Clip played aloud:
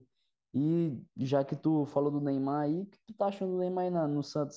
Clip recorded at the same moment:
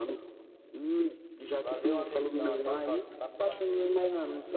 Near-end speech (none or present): present